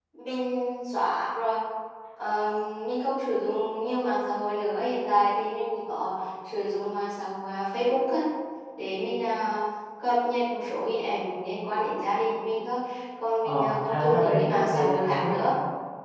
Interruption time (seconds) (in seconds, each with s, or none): 13.4 s